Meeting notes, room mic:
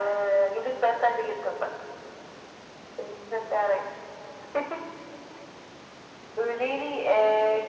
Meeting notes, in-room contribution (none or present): none